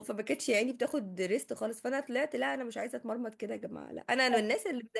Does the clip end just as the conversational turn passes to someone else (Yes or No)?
No